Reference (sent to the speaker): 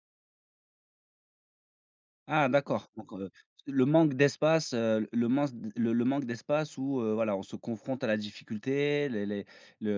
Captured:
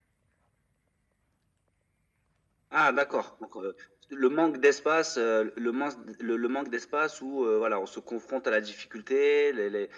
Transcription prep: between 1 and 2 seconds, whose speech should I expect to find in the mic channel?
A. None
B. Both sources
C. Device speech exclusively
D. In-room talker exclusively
A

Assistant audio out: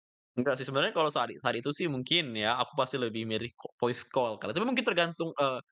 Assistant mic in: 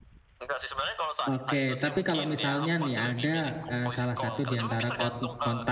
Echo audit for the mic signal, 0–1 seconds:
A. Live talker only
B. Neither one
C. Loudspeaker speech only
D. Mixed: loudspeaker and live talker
C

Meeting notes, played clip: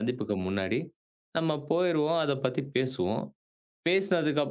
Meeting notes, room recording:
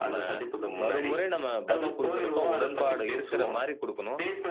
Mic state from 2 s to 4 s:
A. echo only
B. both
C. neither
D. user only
B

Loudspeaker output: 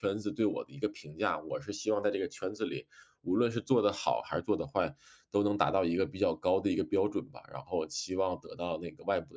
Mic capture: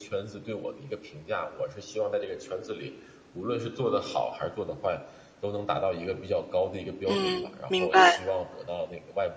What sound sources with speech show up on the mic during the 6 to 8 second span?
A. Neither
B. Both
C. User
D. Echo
B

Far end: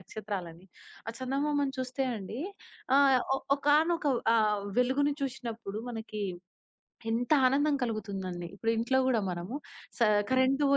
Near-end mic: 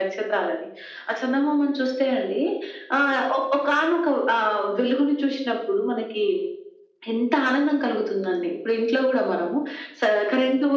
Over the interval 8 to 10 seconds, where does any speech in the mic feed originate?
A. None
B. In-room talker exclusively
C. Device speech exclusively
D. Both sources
C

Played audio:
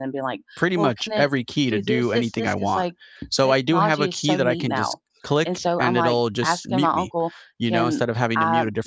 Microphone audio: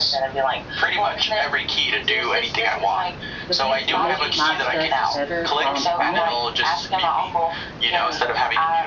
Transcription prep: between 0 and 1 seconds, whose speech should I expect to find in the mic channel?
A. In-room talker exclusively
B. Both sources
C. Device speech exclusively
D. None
C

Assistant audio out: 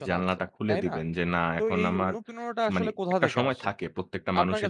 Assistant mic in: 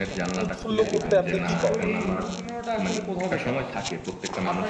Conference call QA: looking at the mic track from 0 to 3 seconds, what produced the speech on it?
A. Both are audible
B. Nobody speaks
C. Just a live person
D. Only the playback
A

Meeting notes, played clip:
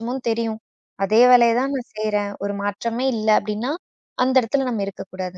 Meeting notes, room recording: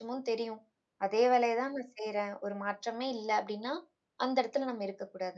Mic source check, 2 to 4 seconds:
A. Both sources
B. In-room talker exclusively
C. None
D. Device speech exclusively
D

